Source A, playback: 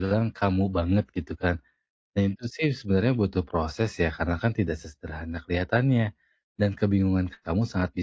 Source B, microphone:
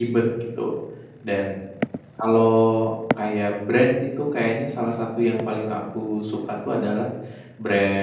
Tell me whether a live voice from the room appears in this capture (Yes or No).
Yes